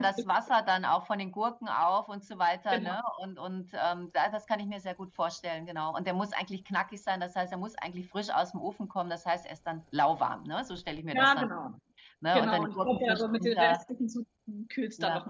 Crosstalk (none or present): present